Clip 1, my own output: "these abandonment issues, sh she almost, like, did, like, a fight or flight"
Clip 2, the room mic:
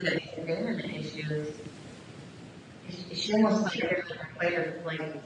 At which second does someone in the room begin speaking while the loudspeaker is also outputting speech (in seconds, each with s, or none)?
none